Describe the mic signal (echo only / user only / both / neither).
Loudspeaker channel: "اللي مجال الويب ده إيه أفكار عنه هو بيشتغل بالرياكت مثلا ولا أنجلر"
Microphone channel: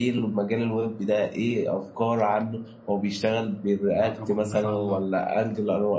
both